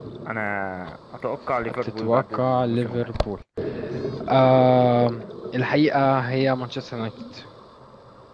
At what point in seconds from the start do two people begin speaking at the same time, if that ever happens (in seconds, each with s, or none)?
1.8 s